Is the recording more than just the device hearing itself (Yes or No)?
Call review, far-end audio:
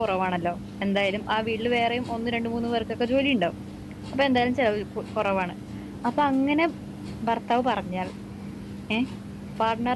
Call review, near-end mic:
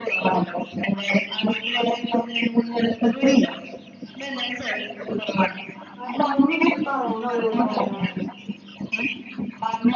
Yes